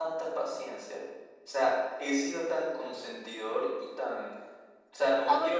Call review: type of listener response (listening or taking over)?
taking over